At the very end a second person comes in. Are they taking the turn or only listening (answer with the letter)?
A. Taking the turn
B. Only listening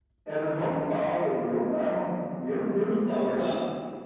A